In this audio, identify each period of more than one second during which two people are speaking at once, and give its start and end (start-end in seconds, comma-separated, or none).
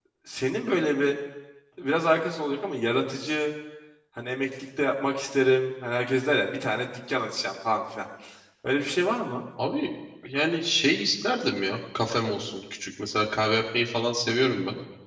none